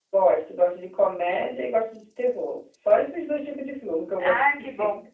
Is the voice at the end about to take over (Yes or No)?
Yes